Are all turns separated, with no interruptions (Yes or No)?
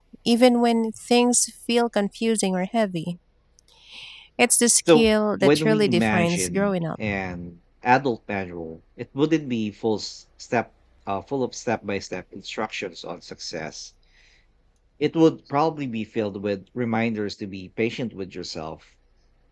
No